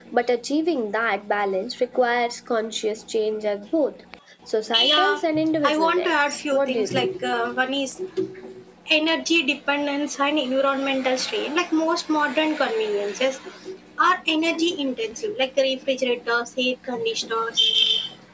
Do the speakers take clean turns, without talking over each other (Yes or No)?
No